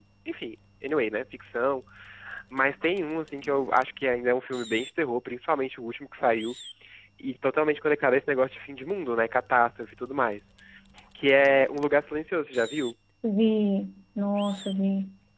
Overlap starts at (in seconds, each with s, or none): none